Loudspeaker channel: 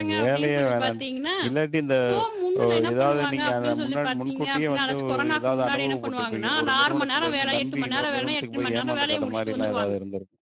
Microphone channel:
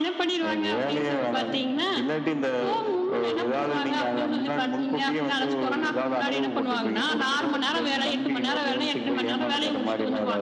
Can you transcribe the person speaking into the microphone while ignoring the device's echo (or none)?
none